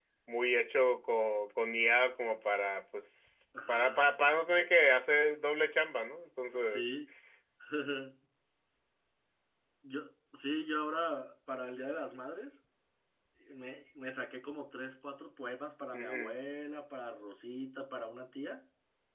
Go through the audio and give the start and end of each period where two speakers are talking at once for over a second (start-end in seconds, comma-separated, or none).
none